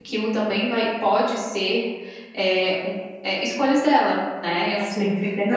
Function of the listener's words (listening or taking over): taking over